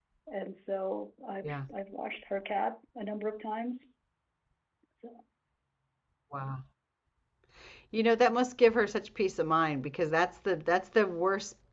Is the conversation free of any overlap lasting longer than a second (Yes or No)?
Yes